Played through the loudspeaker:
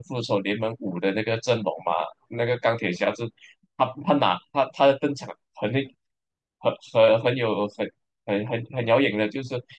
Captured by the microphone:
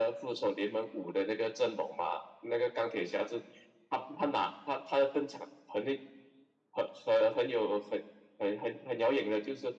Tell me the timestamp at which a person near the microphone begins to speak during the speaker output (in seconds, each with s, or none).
none